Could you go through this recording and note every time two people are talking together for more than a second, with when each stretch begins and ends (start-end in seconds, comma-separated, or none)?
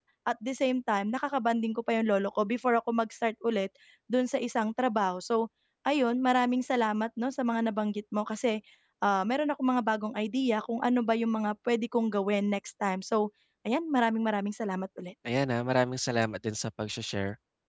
none